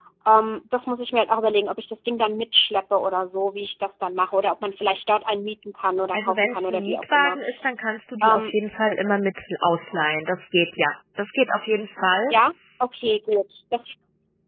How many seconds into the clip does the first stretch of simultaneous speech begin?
6.1 s

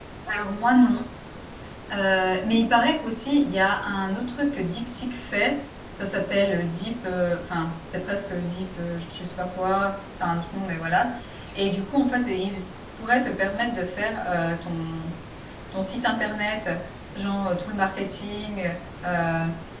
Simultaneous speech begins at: none

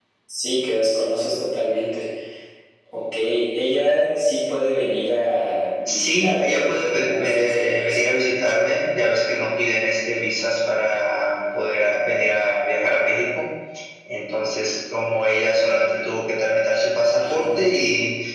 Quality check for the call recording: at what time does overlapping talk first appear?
5.9 s

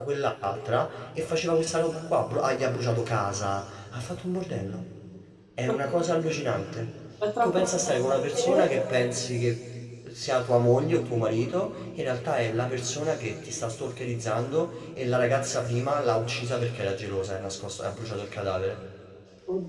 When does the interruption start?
7.4 s

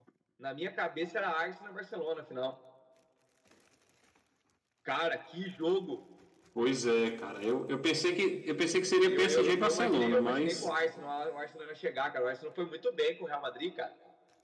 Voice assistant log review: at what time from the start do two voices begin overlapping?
9.0 s

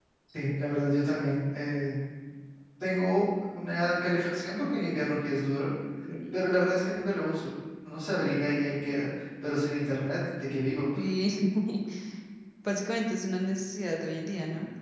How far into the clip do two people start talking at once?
none

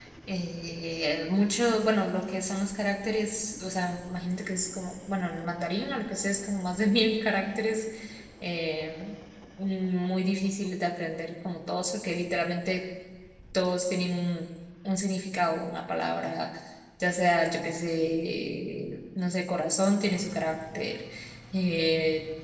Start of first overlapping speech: none

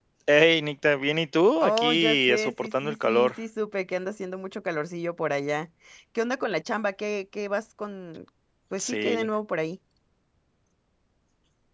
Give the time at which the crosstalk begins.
1.6 s

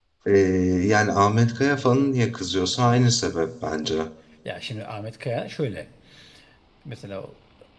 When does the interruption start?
none

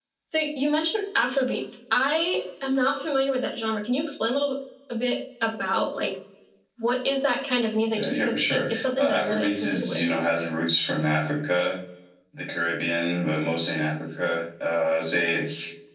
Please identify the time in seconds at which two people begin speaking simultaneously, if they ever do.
7.8 s

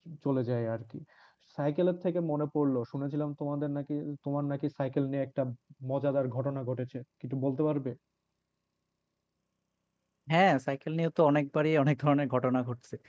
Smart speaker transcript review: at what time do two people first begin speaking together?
none

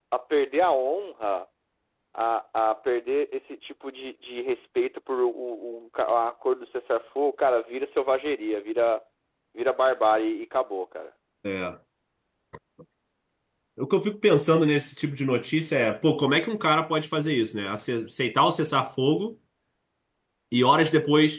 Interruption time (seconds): none

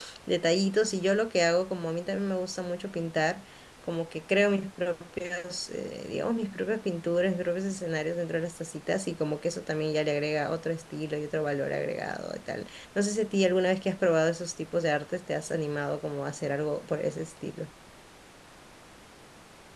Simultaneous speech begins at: none

